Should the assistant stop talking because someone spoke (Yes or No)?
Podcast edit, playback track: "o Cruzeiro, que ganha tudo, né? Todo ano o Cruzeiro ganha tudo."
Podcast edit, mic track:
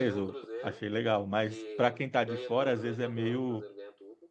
Yes